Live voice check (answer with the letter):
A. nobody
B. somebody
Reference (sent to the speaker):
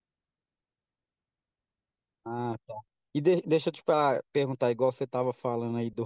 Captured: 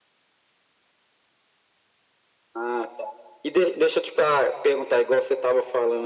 A